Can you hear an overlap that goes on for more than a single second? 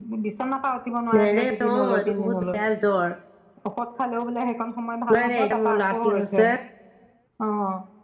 Yes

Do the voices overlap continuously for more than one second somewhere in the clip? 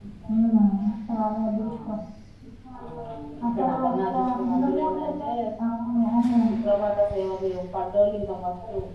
Yes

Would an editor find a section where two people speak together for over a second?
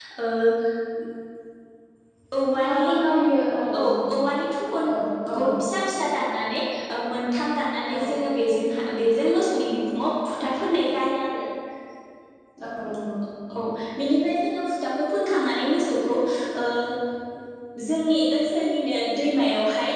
No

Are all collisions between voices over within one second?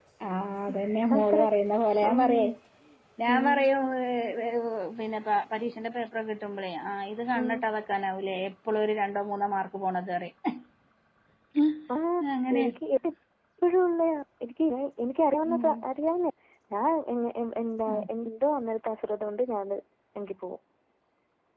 Yes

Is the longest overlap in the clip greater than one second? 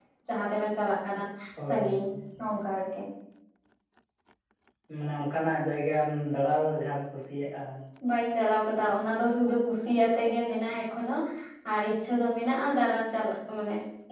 No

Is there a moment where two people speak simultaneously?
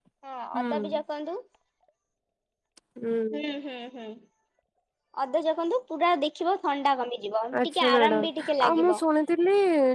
Yes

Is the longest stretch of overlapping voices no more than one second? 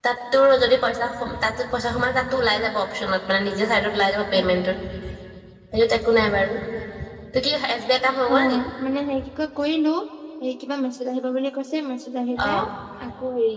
Yes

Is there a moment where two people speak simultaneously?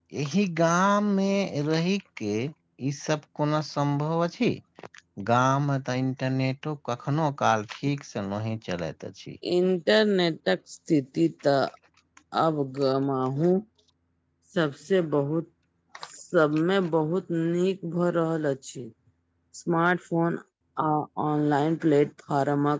No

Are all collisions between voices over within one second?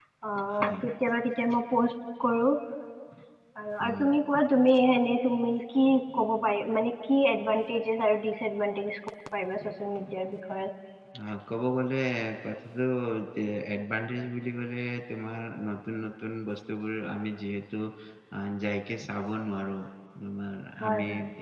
Yes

